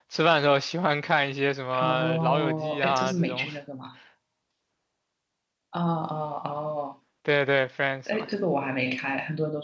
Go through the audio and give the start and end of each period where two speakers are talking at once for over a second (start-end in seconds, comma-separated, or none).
1.8-3.5